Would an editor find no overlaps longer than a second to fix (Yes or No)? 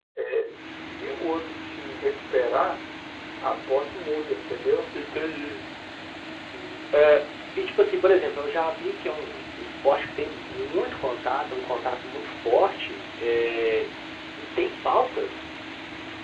Yes